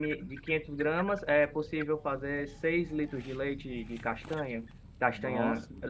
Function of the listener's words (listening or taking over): listening